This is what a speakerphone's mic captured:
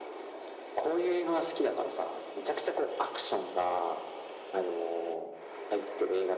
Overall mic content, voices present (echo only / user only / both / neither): echo only